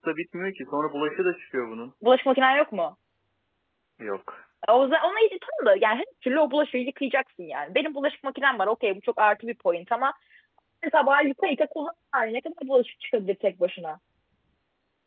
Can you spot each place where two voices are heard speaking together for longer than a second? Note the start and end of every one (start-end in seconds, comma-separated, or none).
none